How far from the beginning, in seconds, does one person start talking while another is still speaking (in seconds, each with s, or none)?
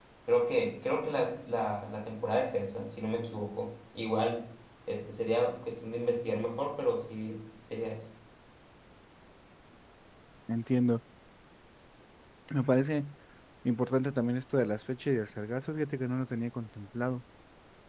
none